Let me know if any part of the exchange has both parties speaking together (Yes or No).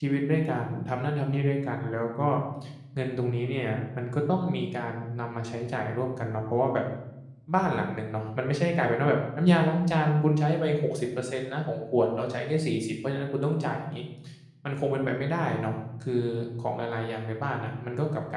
No